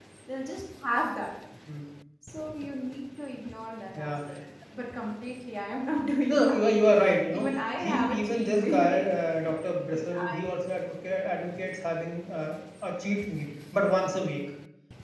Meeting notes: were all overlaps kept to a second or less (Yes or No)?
No